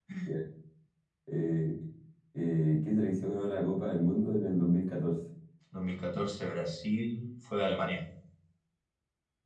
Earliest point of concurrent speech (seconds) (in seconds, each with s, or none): none